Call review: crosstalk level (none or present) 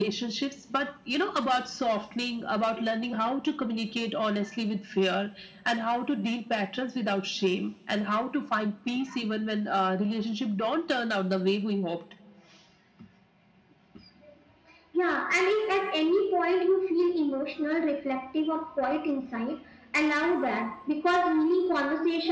none